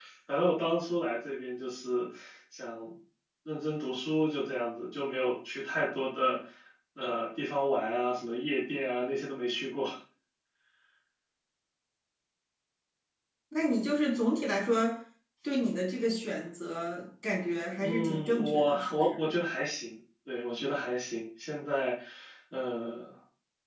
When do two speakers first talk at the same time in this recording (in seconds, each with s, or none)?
17.8 s